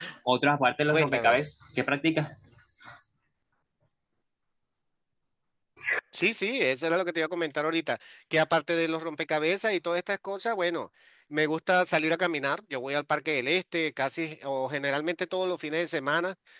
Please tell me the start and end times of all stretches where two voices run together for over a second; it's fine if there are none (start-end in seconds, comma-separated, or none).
none